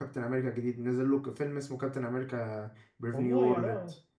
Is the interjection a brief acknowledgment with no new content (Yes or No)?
No